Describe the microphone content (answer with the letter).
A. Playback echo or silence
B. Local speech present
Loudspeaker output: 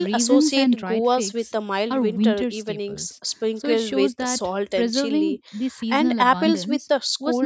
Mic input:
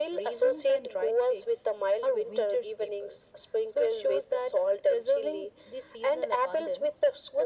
A